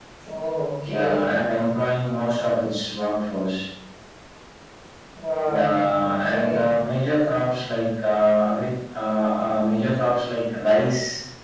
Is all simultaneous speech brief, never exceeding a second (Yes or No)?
No